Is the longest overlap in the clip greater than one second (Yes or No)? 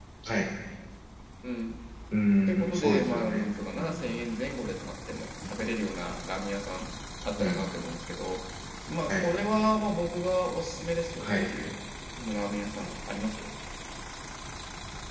Yes